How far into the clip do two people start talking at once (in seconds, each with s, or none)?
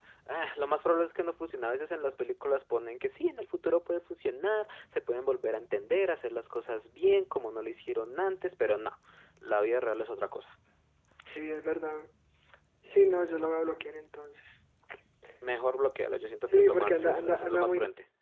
16.5 s